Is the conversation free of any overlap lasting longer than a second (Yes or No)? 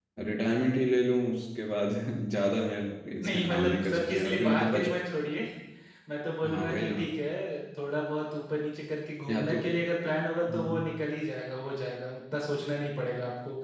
No